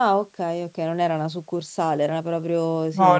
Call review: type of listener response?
taking over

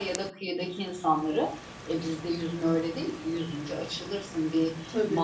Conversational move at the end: listening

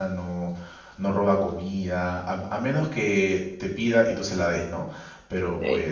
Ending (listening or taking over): listening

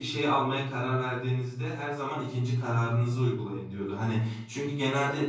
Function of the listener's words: listening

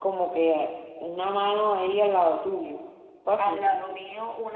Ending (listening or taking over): taking over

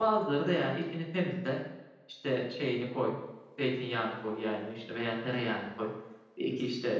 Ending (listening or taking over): listening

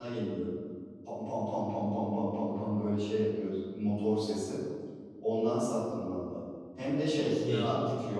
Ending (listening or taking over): listening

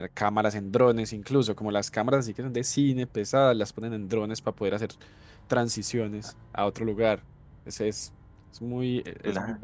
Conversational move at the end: listening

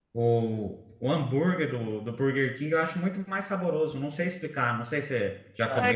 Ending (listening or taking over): taking over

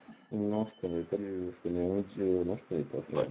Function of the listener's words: taking over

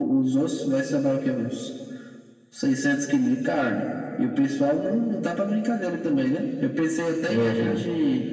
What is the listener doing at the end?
listening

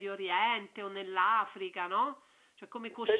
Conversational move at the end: taking over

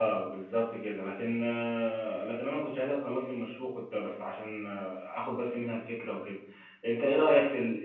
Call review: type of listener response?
taking over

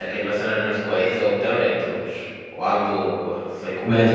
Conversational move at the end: listening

